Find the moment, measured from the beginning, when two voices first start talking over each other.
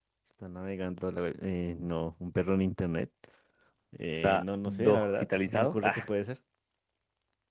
4.2 s

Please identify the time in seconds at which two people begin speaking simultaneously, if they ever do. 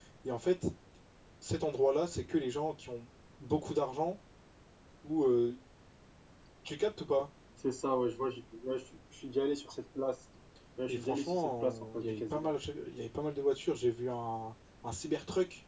10.9 s

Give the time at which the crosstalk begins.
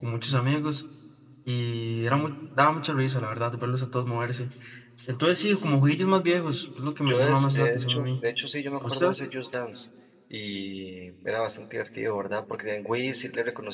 7.0 s

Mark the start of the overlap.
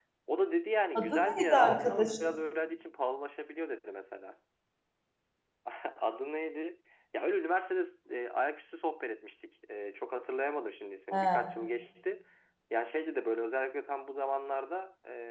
0.9 s

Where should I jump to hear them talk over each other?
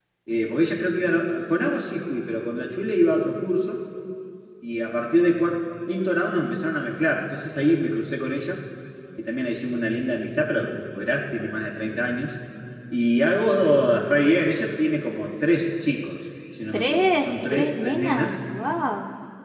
16.7 s

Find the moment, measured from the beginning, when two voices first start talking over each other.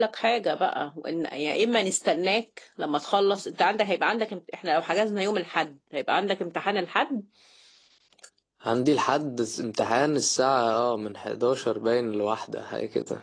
none

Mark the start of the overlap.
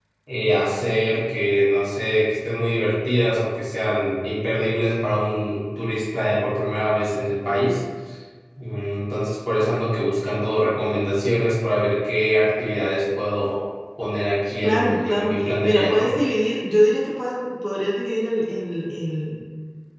14.6 s

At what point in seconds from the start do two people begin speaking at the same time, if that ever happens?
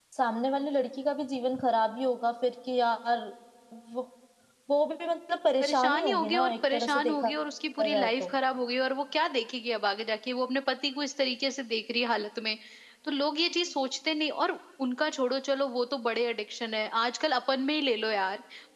5.6 s

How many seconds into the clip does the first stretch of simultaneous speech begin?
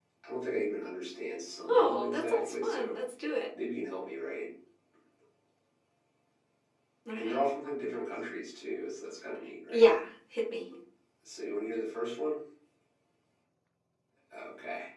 1.7 s

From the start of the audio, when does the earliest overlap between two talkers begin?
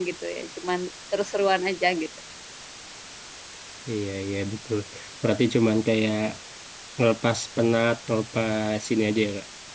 none

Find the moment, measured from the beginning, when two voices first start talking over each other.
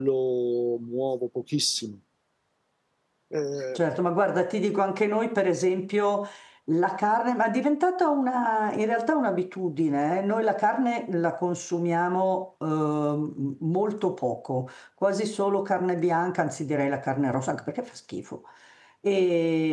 none

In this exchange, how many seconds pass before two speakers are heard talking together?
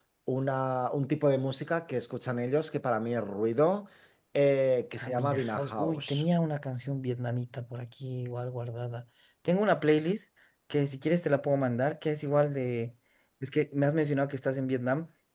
5.0 s

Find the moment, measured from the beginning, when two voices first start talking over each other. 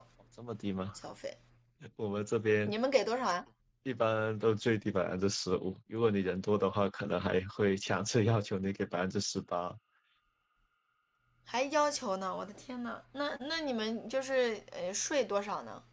none

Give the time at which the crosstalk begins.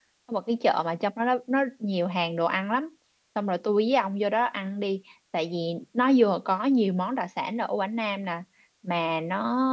none

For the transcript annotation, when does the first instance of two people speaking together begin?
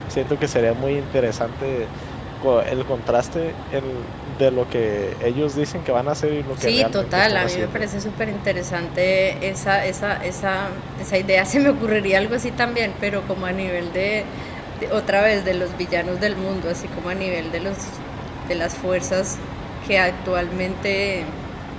6.6 s

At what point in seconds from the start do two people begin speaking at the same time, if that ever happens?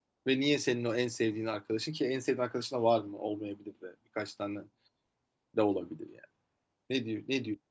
none

